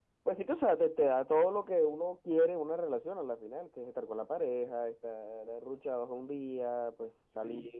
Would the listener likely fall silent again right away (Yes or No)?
Yes